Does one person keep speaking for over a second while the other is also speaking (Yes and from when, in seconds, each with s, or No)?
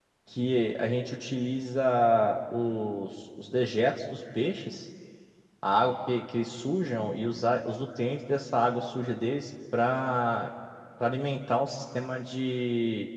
No